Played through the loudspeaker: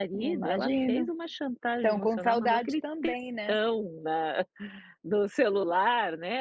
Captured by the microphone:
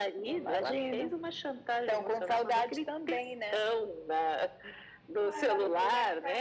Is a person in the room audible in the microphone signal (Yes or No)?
Yes